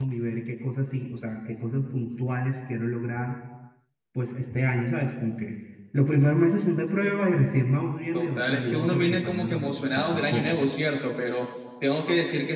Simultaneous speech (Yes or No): Yes